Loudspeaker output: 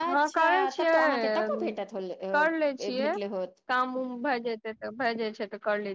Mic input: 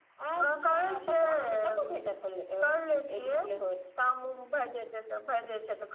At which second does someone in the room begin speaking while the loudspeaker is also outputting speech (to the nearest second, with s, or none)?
none